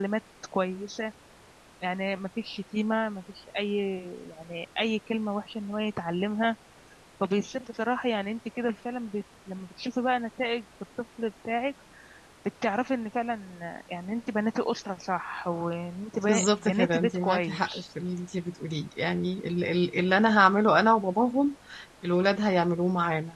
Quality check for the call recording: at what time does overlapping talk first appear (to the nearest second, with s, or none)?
16 s